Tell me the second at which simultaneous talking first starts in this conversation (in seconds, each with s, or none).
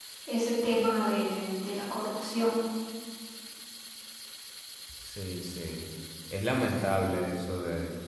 none